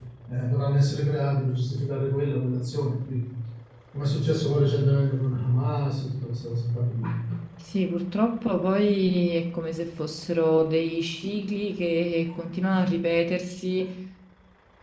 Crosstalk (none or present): none